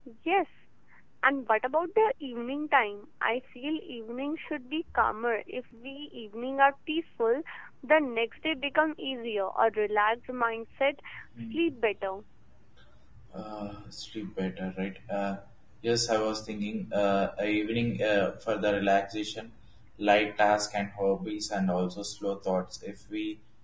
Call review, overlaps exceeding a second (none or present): none